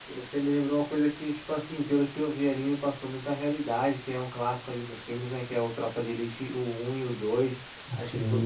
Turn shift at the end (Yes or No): No